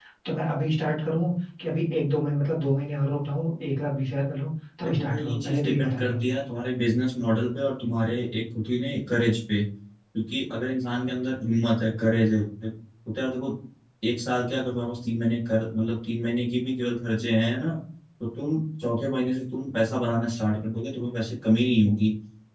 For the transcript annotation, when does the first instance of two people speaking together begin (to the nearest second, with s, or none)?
5 s